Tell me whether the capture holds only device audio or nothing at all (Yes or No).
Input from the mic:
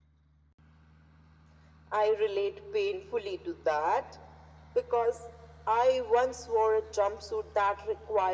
Yes